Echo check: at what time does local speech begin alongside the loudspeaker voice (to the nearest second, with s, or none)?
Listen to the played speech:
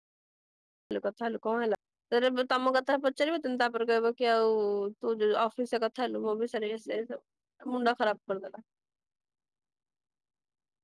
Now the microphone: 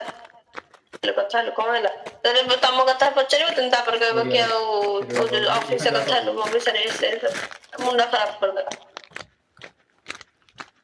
4 s